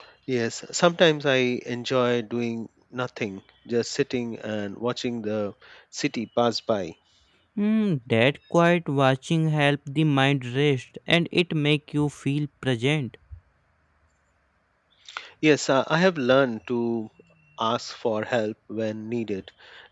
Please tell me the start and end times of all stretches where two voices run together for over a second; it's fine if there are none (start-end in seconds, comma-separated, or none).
none